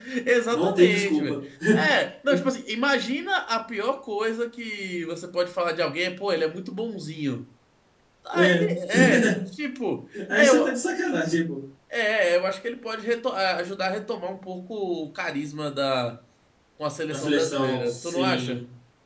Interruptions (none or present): present